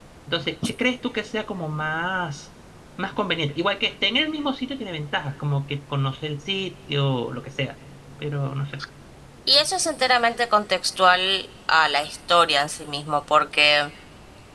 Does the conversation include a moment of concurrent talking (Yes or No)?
No